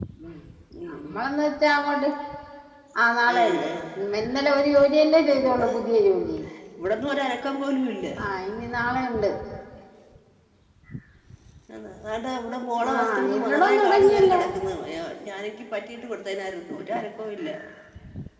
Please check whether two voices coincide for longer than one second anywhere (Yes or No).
Yes